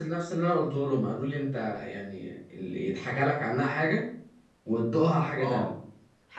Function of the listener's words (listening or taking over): taking over